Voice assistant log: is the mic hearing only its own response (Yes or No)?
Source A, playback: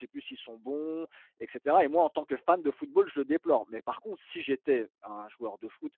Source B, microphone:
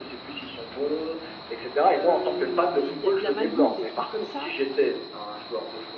No